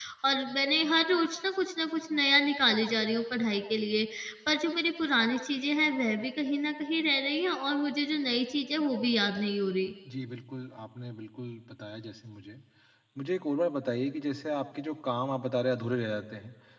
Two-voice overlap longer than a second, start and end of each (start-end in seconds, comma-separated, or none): none